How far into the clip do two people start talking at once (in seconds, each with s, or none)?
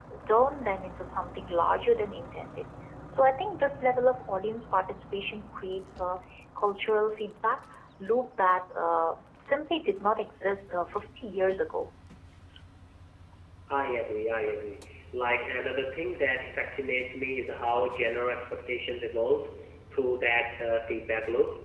none